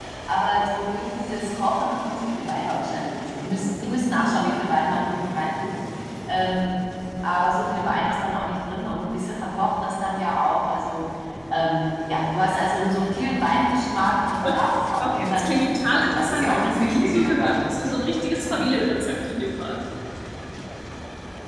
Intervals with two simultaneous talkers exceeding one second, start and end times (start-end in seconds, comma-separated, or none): 14.4-17.6